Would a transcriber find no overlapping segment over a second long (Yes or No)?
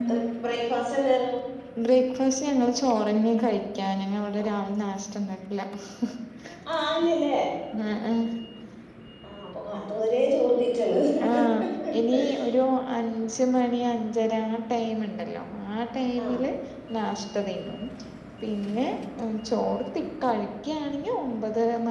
Yes